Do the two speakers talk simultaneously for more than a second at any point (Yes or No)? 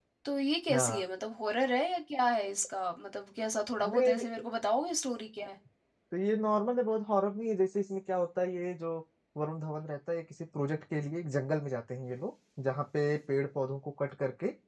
No